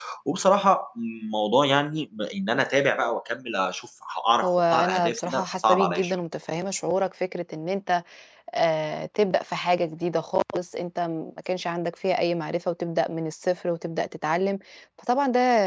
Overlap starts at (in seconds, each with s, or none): 4.4 s